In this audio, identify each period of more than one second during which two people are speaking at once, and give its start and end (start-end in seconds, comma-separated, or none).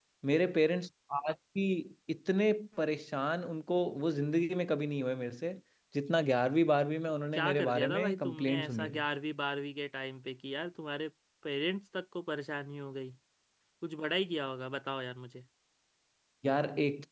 7.3-9.0